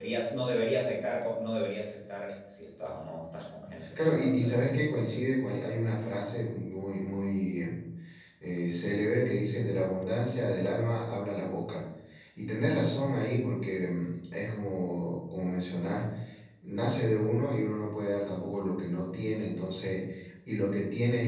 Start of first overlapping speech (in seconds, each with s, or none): 4.0 s